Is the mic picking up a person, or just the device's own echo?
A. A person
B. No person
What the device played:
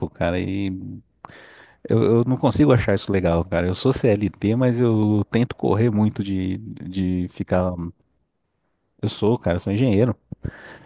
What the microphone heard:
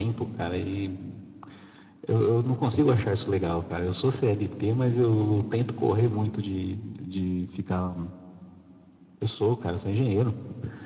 B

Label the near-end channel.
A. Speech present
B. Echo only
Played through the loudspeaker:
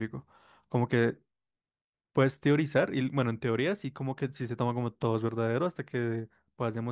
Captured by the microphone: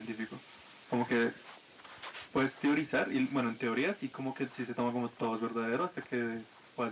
B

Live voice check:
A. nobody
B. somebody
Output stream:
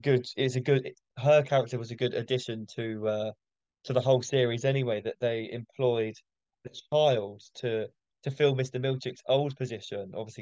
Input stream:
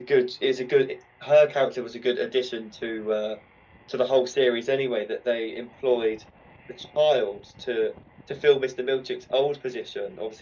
A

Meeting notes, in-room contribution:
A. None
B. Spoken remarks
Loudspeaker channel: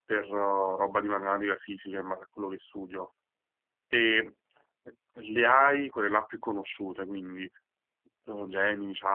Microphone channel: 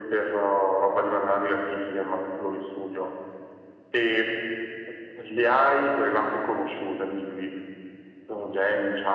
A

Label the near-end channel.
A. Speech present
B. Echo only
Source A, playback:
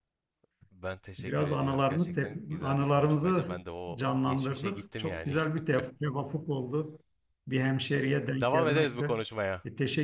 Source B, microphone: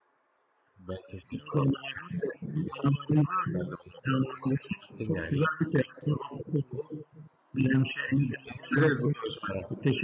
B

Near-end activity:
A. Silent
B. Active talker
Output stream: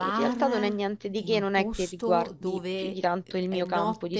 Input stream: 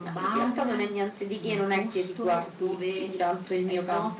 A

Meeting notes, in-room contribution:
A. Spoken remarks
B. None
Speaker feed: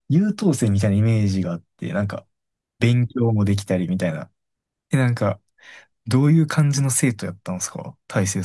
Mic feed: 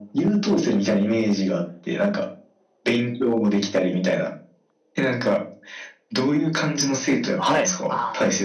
A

